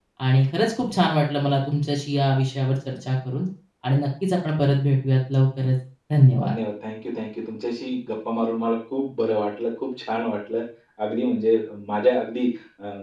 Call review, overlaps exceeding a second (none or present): none